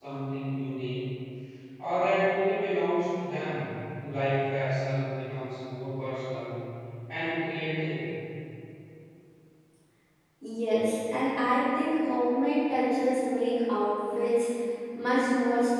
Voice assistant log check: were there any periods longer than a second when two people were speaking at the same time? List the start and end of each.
none

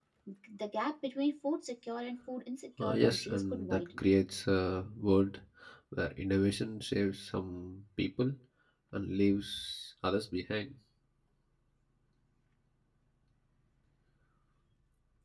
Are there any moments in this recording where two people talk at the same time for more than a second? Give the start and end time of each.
2.8-4.0

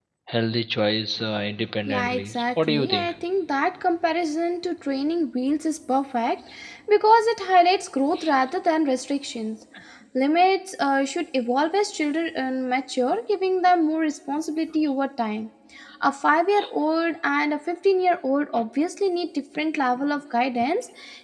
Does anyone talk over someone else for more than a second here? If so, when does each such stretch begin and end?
1.9-3.1

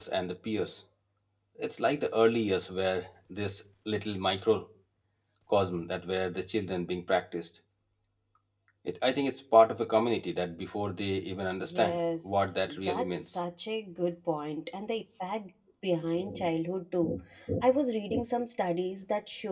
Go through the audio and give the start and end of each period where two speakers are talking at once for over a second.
11.6-13.4

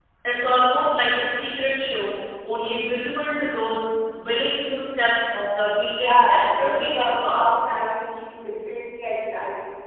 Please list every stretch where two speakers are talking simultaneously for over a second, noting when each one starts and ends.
5.9-7.4

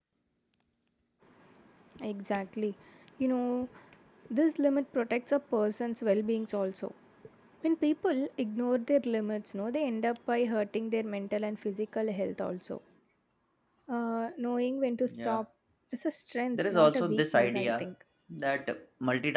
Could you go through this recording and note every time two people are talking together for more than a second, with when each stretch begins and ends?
16.6-17.9

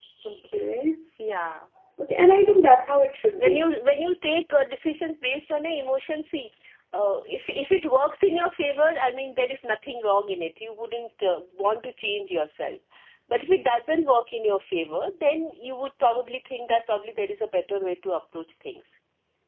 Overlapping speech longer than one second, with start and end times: 2.2-3.6

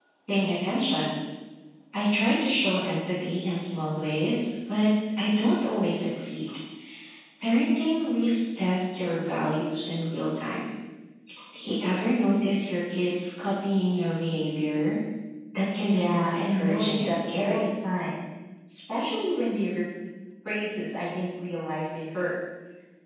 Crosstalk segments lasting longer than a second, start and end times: 15.8-17.6

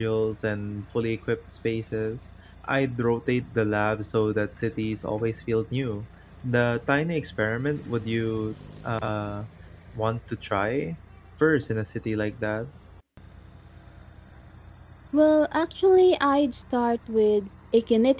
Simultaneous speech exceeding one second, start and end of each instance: none

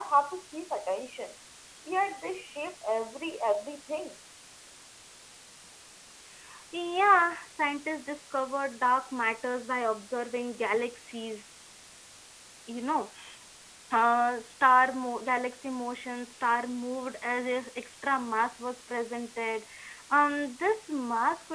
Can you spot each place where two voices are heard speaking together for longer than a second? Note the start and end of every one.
none

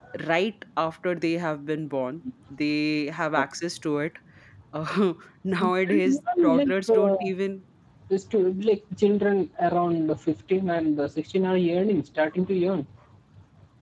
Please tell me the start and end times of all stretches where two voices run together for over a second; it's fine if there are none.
5.6-7.2

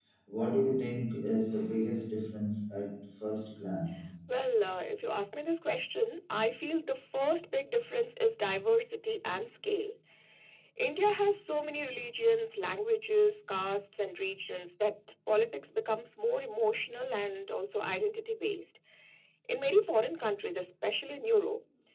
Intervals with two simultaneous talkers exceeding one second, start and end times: none

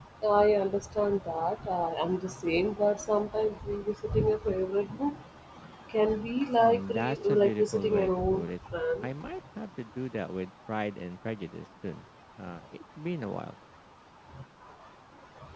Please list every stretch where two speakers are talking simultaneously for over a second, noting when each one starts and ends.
6.6-8.5

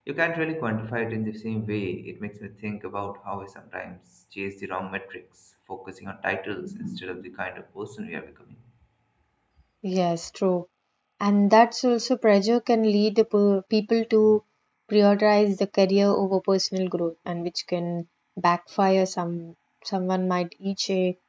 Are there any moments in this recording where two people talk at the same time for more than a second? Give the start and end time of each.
none

